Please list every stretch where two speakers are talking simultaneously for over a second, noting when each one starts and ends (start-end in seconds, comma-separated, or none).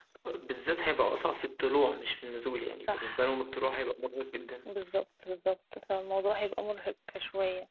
none